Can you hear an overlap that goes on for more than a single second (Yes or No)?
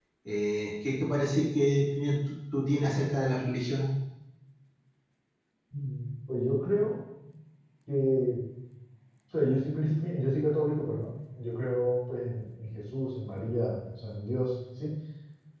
No